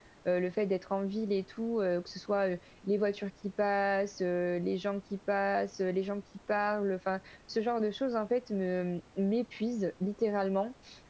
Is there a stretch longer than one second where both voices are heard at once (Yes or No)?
No